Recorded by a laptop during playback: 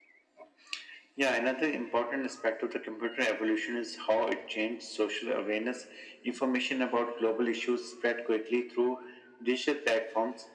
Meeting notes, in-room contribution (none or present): none